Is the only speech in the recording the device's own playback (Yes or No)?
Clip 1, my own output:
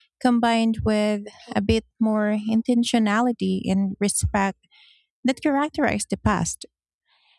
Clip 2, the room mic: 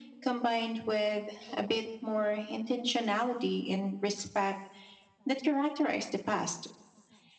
Yes